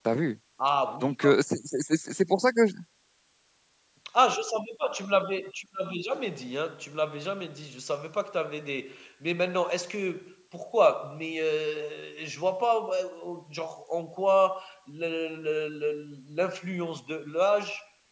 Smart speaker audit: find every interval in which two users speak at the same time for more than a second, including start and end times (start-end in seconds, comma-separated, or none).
none